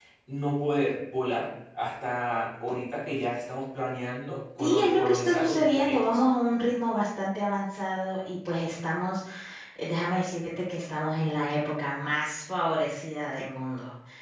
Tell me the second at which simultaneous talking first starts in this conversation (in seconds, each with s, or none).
4.6 s